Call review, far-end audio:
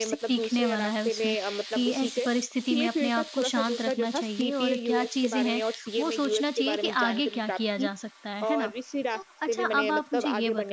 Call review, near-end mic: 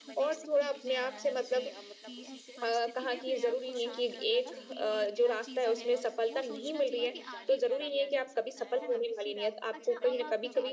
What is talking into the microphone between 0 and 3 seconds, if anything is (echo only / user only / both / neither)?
both